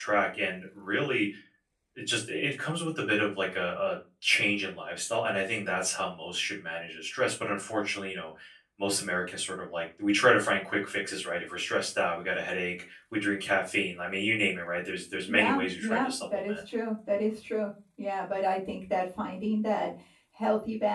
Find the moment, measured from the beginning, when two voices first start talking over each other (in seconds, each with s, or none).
15.3 s